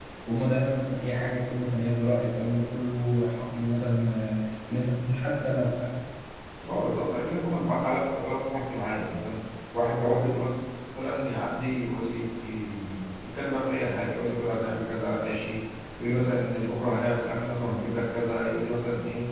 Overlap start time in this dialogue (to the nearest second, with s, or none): none